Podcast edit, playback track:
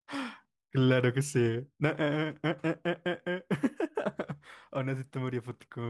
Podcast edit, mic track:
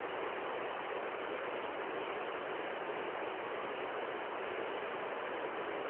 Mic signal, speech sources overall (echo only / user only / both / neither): neither